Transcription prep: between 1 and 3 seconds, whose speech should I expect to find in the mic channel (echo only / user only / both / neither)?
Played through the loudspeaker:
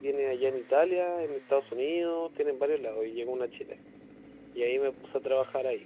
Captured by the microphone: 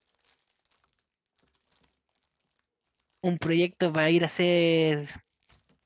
neither